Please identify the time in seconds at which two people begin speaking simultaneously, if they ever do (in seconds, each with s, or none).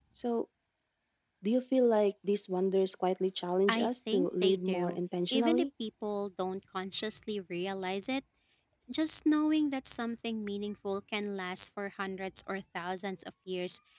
3.7 s